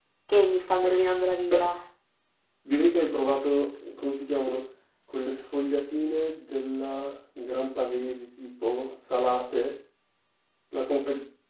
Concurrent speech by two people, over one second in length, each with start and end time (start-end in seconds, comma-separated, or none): none